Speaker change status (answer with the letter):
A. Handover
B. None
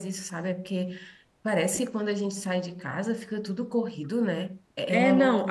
A